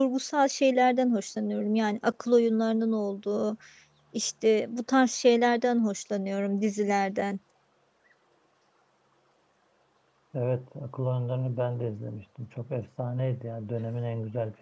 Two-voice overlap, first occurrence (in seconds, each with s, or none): none